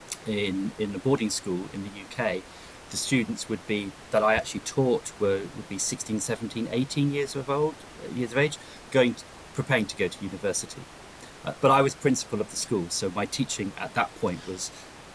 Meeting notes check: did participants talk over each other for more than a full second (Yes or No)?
No